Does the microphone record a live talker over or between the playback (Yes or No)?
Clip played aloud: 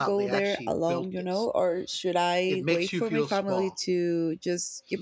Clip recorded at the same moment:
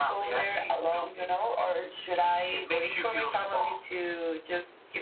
No